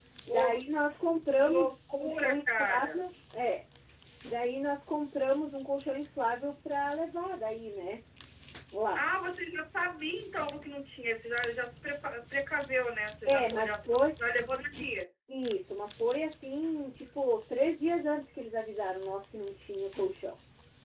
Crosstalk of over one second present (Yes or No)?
Yes